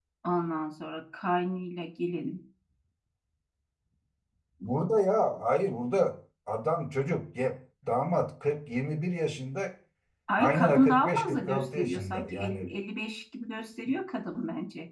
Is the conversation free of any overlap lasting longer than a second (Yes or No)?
No